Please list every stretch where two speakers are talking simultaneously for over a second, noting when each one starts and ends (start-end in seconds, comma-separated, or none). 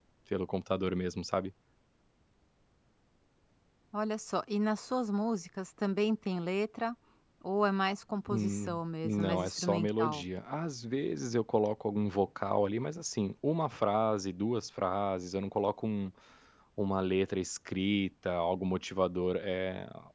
8.3-10.2